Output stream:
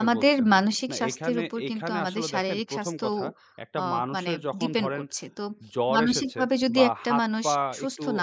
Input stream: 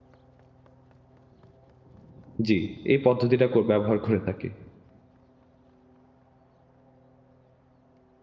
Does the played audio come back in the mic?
No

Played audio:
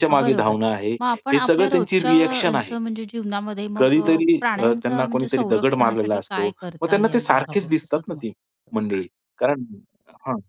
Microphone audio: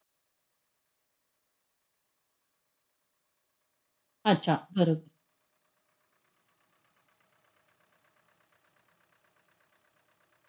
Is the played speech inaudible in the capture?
Yes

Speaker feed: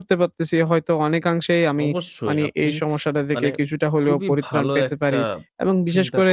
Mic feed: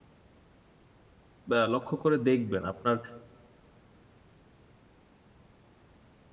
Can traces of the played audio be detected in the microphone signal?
No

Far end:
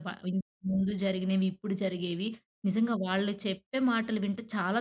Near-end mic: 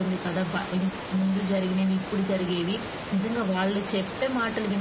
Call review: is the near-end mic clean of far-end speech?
No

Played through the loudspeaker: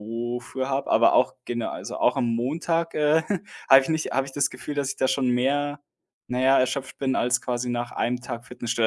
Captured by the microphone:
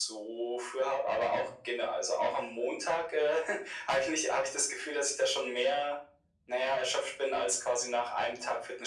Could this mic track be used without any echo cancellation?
No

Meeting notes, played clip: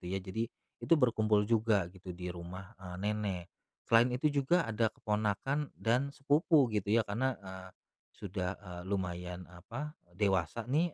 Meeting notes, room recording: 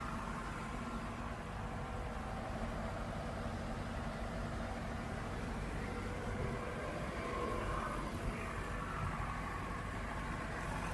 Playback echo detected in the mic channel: No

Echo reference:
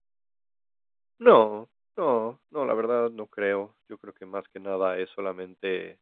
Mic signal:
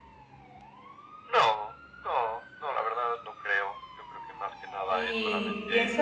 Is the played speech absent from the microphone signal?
No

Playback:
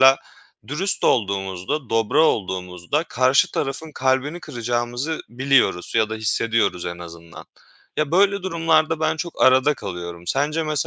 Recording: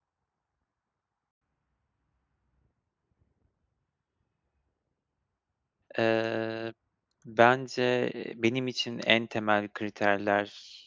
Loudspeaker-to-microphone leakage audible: No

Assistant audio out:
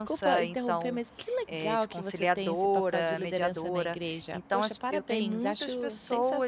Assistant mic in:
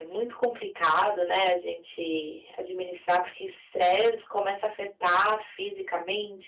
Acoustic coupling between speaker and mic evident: No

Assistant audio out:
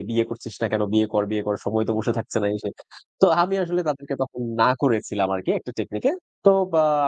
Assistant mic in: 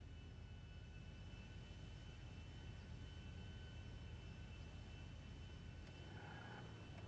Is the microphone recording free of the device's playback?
Yes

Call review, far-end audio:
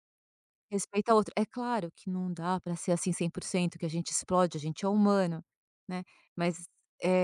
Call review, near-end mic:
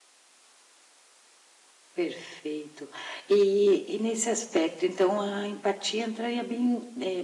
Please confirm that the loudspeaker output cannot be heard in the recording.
Yes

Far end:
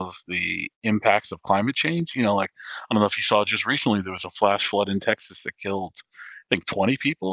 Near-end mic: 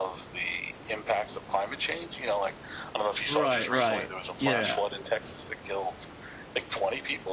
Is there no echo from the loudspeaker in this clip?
No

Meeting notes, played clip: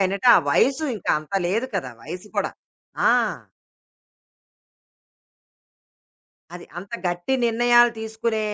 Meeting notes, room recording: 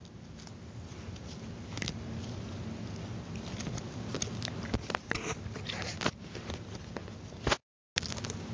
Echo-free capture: Yes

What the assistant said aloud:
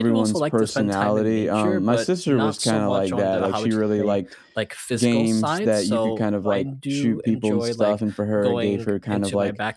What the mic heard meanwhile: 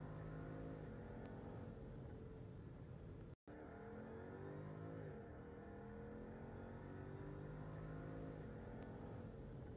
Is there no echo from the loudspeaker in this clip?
Yes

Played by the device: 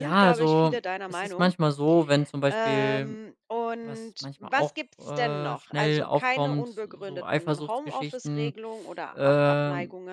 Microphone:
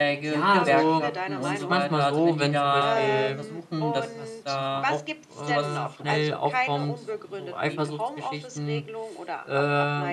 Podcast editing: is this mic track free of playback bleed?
No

